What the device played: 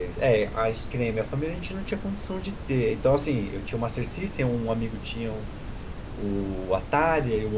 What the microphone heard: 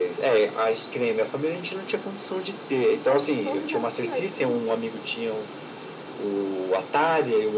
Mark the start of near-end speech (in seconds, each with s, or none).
3.0 s